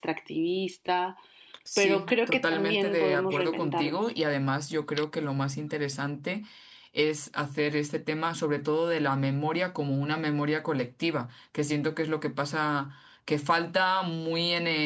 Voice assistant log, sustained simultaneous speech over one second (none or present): present